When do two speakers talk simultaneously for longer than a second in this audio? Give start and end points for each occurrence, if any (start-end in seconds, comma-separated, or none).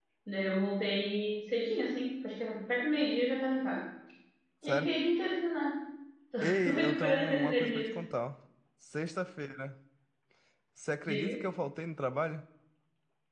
6.6-7.9